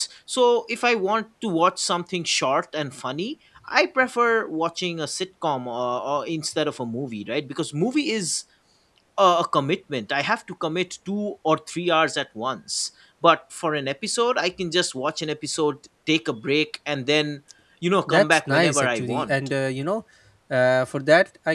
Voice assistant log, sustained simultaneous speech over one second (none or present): present